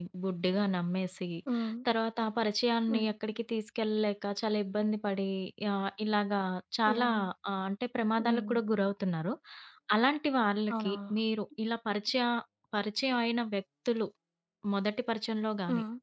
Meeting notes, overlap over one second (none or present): none